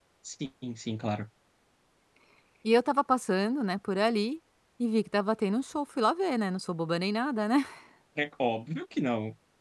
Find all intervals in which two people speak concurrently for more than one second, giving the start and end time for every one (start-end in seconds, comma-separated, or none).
none